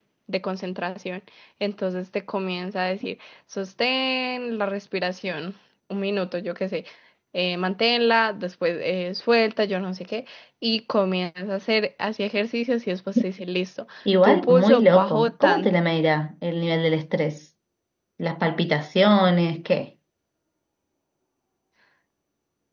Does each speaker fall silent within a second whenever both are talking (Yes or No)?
No